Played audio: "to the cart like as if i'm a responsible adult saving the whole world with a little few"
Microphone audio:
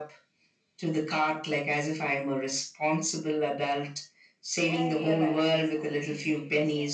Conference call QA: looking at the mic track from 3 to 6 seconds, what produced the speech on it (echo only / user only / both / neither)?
both